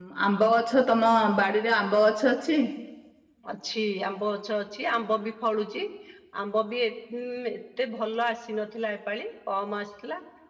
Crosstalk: none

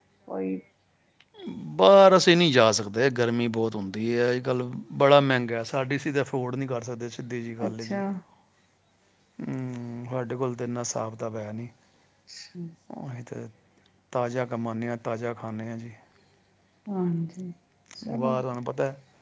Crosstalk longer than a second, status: none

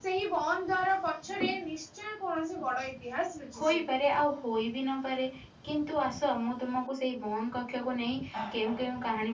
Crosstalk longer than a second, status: none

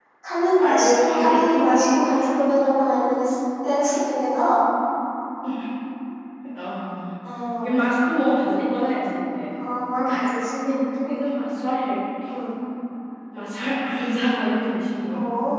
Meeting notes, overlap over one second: present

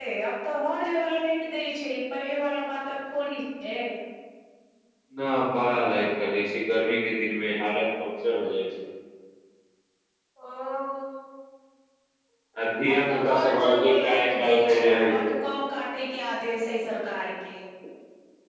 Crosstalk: present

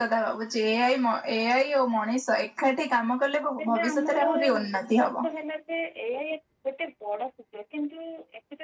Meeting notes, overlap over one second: present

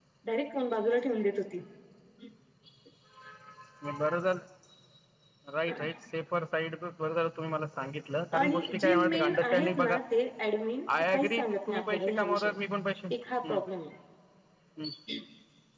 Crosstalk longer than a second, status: present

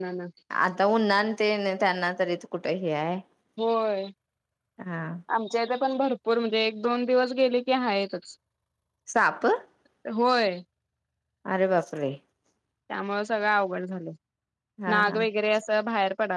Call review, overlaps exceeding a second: none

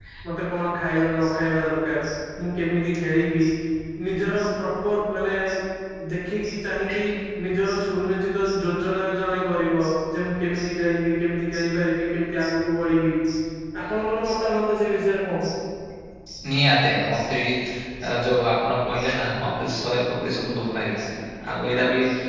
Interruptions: none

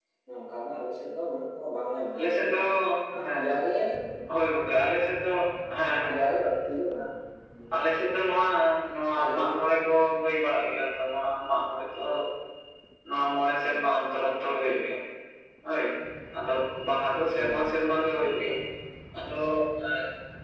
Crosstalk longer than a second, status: none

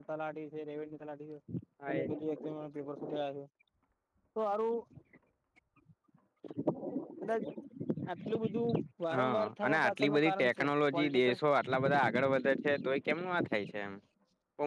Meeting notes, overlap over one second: present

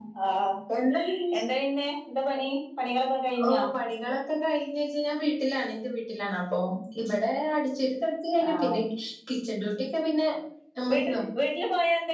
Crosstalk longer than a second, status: none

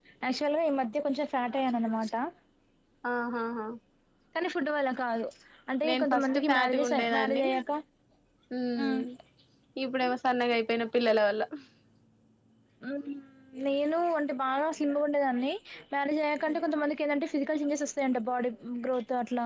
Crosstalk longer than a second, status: present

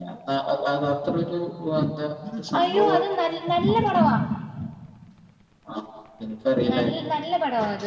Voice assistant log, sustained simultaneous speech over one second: present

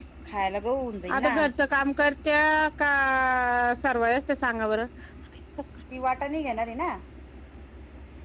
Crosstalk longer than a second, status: none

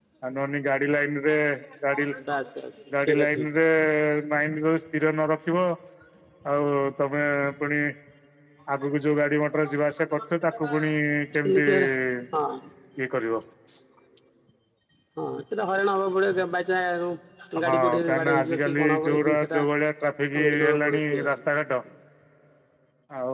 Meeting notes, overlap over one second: present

